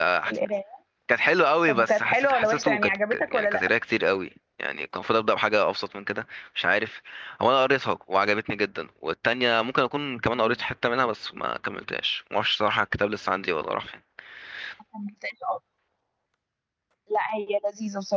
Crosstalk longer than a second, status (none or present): present